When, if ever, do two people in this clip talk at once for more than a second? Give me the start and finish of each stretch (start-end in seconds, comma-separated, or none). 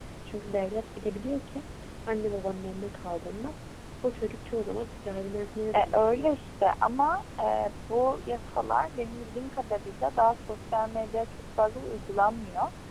none